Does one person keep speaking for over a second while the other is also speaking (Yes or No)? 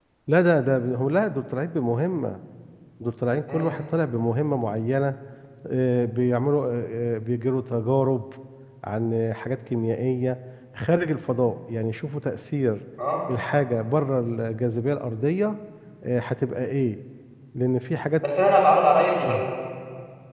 No